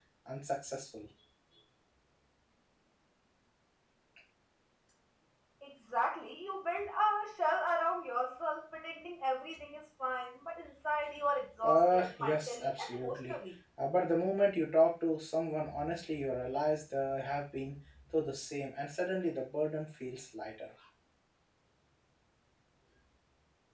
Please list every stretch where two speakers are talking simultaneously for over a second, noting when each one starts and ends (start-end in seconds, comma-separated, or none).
11.6-13.3